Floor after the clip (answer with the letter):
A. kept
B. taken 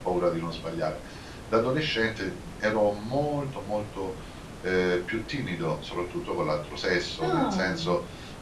A